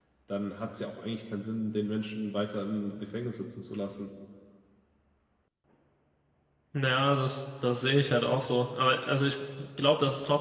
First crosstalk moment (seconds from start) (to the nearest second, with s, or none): none